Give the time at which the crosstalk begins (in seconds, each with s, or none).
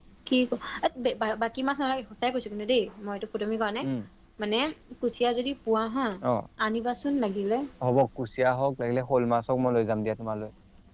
none